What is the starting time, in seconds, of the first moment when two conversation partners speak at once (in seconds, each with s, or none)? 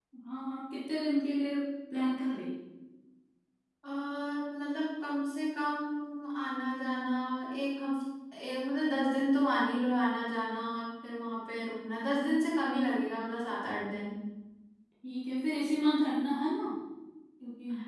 none